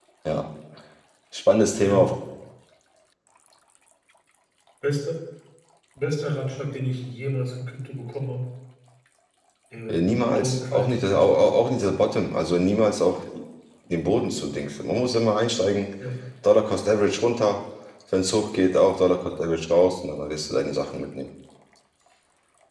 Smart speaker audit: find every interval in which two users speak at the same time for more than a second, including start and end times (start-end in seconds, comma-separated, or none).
9.9-11.6